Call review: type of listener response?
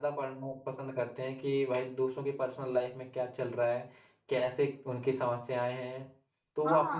taking over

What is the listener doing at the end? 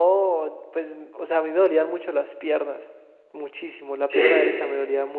listening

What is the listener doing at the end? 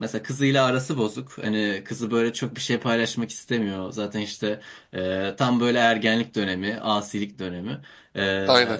listening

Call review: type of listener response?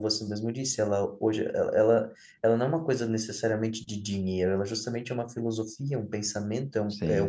listening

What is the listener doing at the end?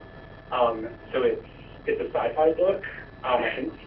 listening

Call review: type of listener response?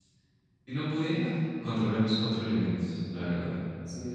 taking over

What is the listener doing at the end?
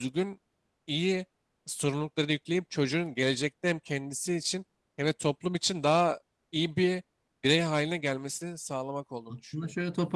taking over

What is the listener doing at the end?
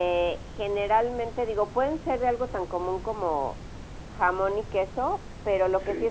listening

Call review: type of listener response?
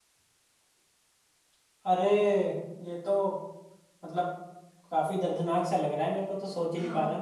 taking over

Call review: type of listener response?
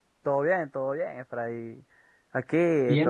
taking over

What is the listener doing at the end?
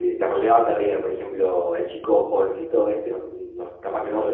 listening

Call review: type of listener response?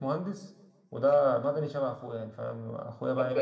taking over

